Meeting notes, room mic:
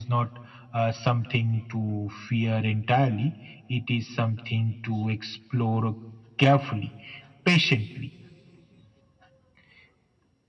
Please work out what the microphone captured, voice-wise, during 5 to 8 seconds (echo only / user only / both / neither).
echo only